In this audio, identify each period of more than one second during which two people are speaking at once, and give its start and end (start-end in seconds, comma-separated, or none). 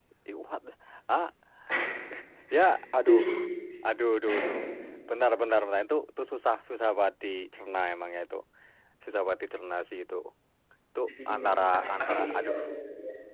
11.1-12.6